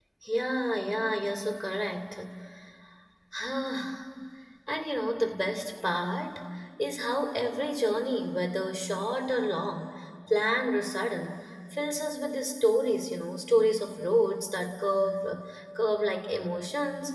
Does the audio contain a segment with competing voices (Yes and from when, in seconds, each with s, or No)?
No